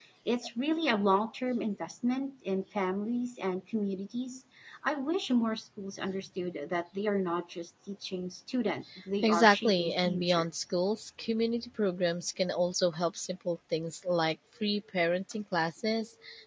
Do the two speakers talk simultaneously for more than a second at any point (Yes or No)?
Yes